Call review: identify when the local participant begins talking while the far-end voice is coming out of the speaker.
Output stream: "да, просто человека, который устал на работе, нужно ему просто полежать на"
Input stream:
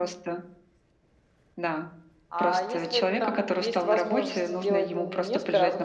2.3 s

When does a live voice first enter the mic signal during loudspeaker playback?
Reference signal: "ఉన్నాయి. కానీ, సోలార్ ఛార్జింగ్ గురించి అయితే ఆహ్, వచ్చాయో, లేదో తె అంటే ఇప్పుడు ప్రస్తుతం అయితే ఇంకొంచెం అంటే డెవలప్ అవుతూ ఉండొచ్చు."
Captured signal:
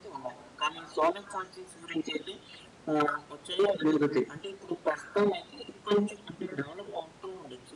none

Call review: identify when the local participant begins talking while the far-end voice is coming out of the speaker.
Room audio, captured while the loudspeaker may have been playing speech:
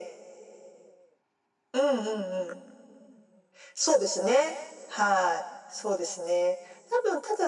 none

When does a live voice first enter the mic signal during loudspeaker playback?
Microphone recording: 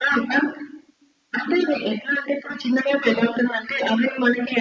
none

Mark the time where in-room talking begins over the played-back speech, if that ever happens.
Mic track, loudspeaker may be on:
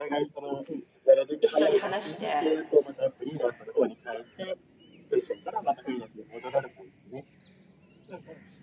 1.4 s

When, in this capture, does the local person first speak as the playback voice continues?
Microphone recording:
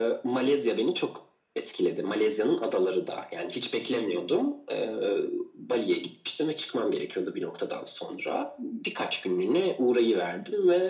none

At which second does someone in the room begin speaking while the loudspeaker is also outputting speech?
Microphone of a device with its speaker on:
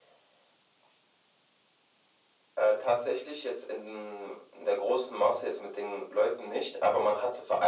none

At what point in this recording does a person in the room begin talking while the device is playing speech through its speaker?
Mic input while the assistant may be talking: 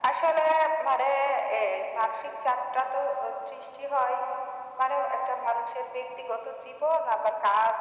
none

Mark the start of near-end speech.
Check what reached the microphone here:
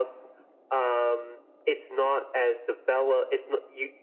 none

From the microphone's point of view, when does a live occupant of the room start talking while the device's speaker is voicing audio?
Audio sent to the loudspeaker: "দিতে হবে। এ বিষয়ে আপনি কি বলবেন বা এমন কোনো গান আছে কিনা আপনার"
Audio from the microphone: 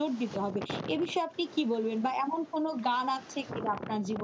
none

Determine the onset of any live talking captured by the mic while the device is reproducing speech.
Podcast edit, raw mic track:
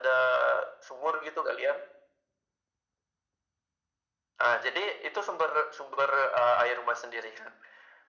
none

